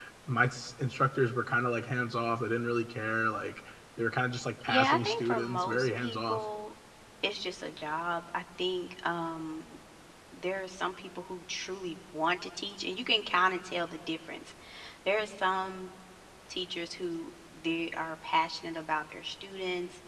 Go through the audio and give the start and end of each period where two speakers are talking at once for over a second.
4.7-6.5

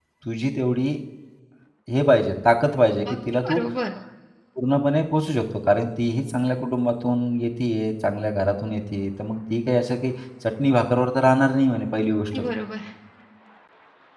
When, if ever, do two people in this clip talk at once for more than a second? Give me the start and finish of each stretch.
none

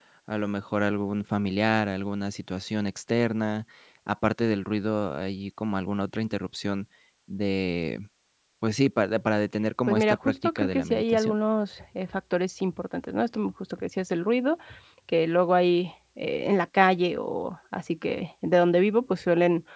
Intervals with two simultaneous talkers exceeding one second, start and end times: 9.9-11.3

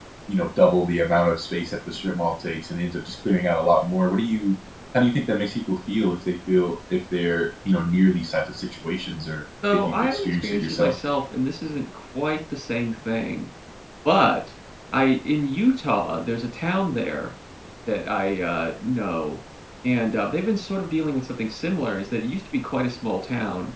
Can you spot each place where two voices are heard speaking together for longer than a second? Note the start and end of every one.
9.7-10.9

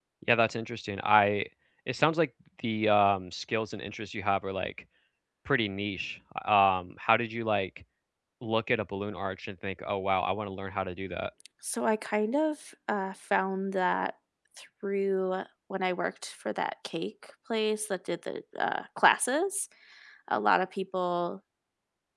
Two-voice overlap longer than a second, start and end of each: none

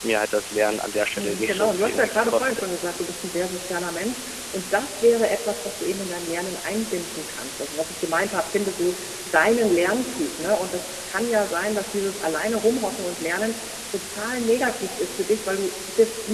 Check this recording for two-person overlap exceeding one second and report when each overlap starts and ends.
1.1-2.6

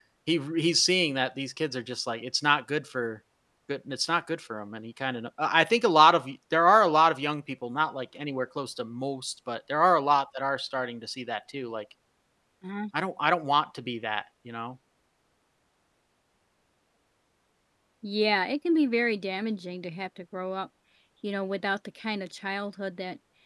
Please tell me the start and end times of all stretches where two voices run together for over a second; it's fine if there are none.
none

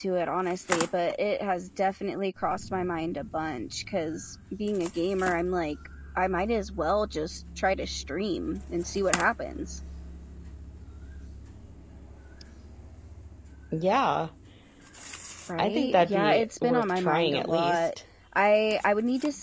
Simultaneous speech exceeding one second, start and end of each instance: 15.6-17.8

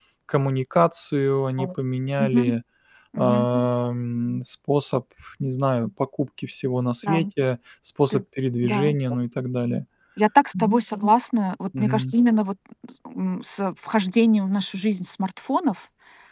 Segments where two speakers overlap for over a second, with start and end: none

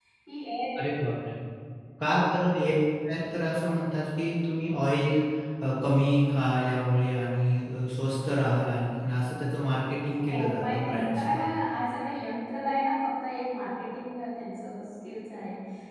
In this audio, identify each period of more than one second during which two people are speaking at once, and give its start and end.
10.3-11.5

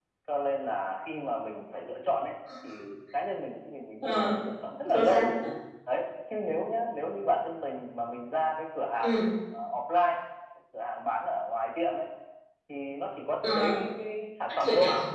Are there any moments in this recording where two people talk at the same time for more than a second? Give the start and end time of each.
none

